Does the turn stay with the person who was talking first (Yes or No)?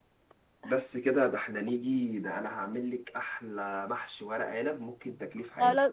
No